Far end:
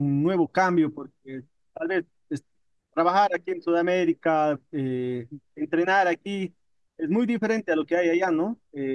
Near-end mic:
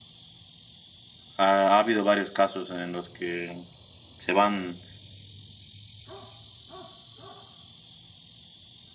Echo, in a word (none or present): none